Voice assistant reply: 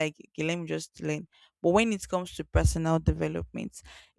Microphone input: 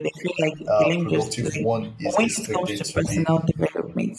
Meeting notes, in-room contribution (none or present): present